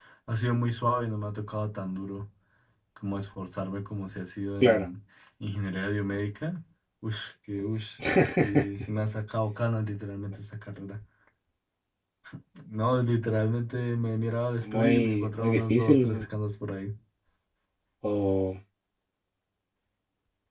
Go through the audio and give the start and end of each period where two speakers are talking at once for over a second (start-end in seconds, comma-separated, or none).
14.6-16.2